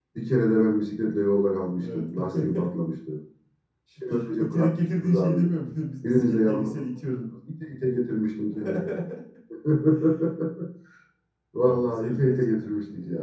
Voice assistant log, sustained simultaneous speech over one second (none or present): present